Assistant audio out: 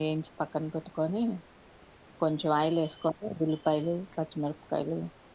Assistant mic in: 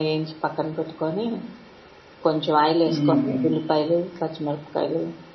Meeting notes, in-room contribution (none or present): present